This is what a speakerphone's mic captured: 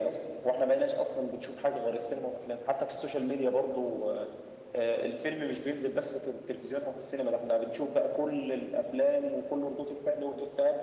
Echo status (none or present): present